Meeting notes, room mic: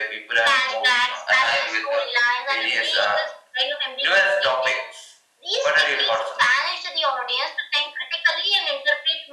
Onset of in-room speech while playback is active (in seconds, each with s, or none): none